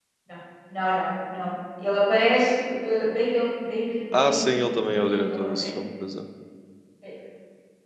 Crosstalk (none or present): present